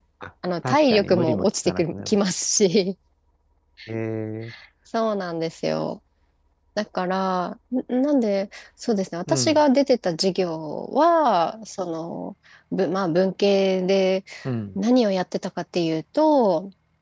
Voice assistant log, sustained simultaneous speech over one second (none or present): present